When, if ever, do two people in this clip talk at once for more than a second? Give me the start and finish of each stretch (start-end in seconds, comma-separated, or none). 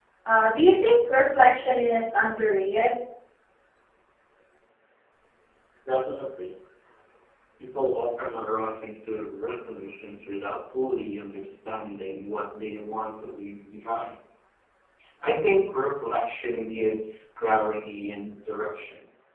none